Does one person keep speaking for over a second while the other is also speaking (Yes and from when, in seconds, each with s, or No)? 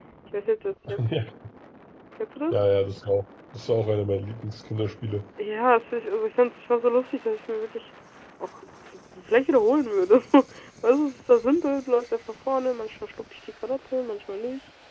No